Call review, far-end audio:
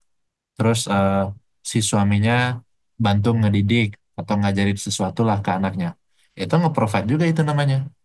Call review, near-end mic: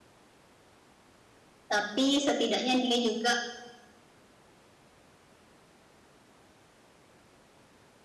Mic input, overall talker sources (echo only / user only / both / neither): user only